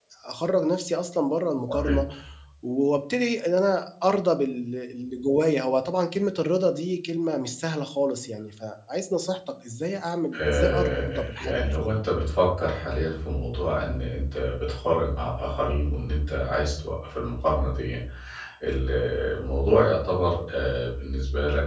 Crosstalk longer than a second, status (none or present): present